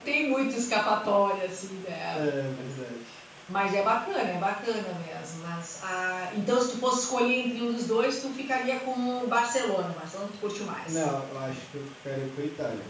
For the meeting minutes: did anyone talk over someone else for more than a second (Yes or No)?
No